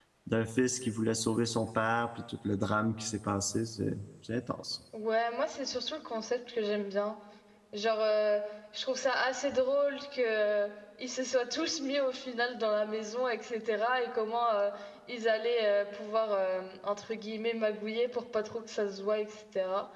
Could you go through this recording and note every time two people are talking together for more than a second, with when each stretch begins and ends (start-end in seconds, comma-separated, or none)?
none